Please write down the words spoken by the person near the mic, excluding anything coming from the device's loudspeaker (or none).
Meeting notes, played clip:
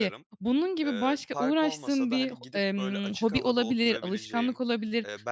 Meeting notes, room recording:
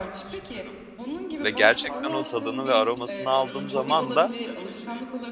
ve gerçekten o tadını ve aromasını aldığım zaman da,